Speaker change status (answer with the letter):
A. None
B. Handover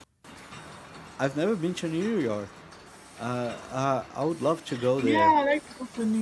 B